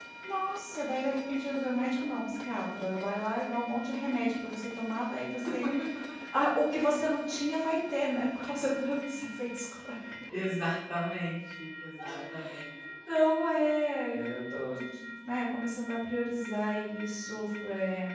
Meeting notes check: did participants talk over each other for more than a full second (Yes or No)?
No